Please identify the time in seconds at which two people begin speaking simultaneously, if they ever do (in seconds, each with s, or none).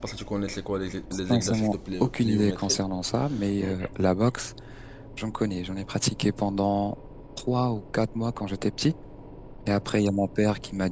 1.3 s